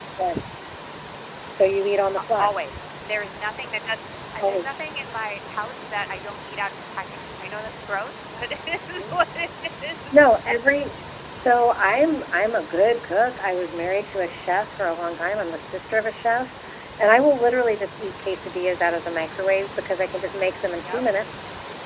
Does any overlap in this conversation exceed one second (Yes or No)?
No